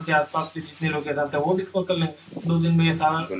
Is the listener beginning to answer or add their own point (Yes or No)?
No